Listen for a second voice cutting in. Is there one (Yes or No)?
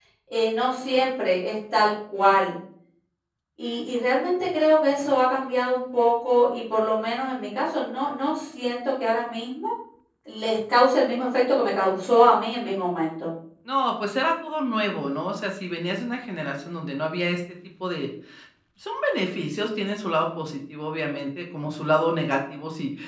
No